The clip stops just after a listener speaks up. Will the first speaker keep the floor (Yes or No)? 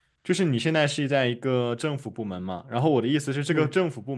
Yes